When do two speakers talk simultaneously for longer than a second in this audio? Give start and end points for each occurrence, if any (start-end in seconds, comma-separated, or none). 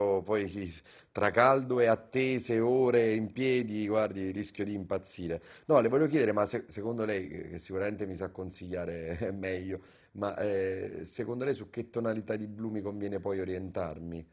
none